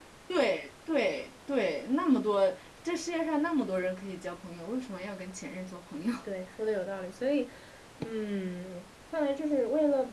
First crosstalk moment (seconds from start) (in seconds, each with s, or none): none